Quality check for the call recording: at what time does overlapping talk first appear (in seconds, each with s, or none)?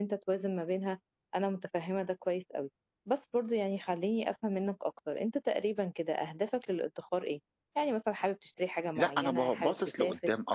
9.0 s